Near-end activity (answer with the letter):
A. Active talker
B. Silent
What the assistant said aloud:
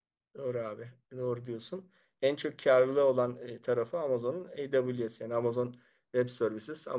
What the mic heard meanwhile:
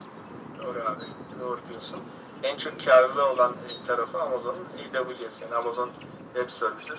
B